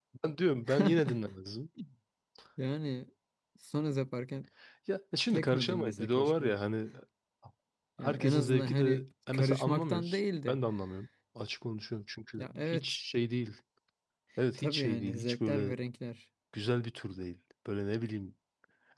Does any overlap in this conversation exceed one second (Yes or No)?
Yes